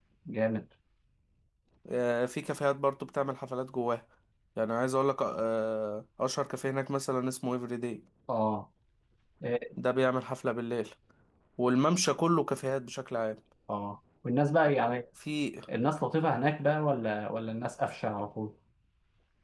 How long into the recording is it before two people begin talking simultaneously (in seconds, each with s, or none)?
none